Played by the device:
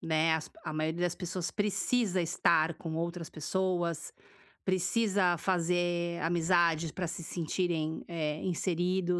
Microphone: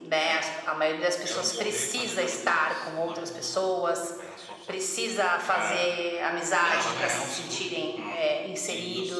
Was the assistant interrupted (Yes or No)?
Yes